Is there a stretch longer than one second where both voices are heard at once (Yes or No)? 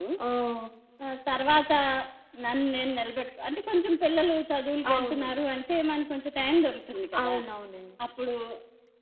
No